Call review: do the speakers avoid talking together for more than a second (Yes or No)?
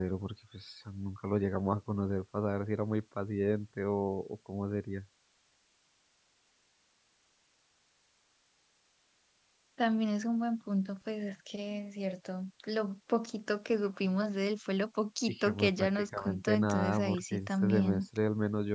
No